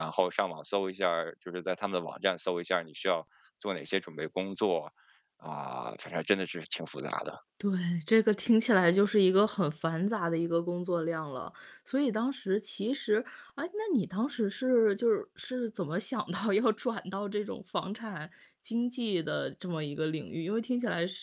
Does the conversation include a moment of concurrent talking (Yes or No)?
No